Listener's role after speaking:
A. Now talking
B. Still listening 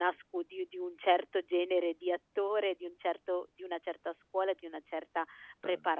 B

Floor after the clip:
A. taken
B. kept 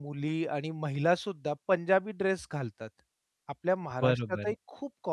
B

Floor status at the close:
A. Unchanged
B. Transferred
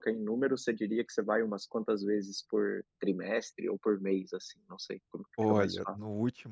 B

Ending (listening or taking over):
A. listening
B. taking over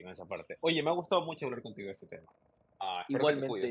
B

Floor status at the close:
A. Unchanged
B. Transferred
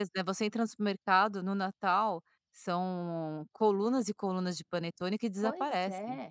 B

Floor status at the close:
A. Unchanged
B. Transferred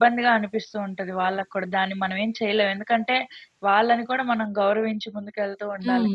B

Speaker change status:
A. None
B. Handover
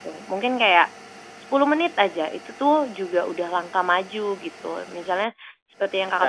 A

